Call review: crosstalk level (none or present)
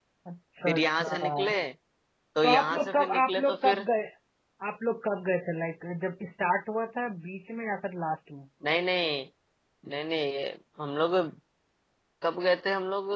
present